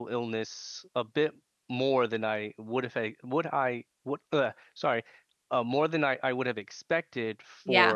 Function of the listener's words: listening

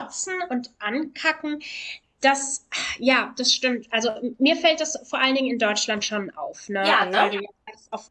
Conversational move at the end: listening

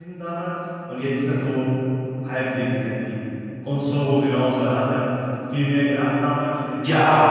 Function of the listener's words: taking over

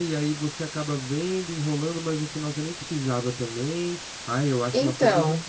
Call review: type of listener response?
listening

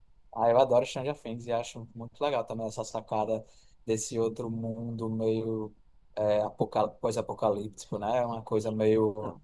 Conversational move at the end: listening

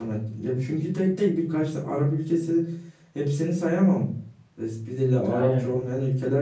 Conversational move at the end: listening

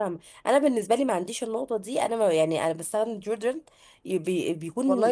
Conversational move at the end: taking over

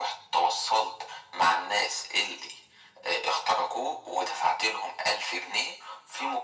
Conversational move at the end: listening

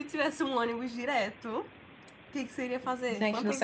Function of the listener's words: taking over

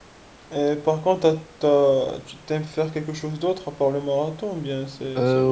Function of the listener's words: taking over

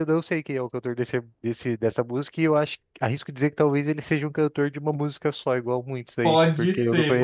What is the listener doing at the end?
taking over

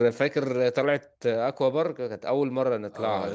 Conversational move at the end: taking over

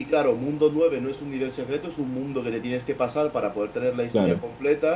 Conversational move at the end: listening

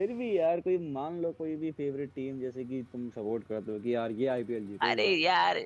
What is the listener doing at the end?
taking over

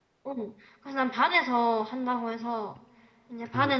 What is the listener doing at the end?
listening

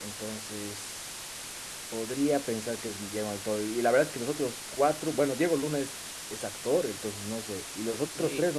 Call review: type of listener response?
taking over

